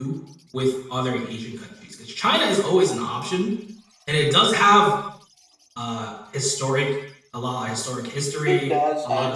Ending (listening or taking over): taking over